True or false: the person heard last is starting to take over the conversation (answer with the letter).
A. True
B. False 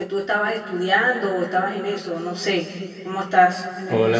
A